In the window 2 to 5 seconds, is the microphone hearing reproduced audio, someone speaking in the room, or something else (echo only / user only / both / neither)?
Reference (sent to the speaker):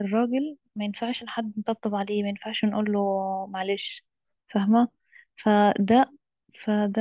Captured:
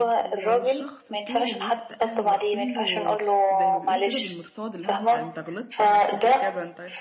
both